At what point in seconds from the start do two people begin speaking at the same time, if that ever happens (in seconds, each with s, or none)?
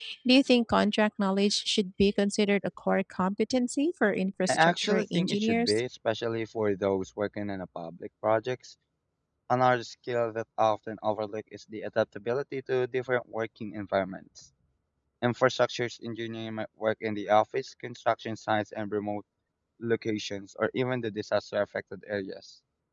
4.5 s